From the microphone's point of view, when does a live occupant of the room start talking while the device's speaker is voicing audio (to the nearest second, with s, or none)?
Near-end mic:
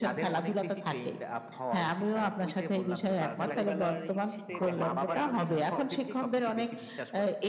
3 s